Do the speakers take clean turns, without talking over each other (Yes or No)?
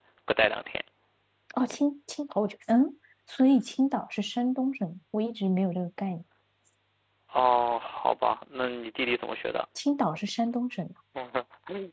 Yes